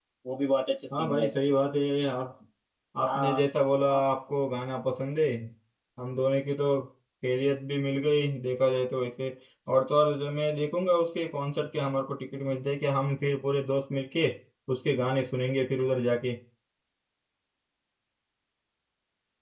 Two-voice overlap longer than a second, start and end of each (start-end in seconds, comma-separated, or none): none